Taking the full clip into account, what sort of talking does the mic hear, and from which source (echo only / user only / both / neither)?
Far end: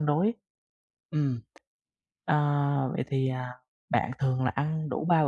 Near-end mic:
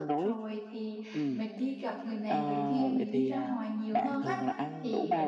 both